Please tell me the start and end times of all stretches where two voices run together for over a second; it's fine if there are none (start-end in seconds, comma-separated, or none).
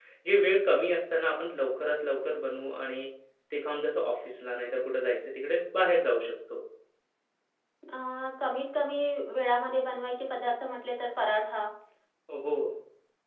none